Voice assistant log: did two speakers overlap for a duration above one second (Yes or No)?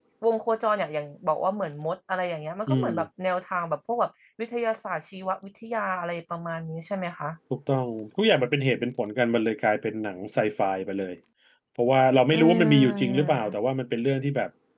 Yes